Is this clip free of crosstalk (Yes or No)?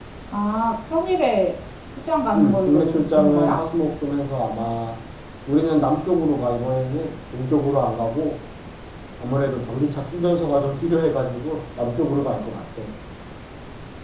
No